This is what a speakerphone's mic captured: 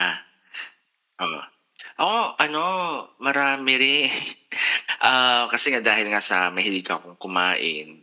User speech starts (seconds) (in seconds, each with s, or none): none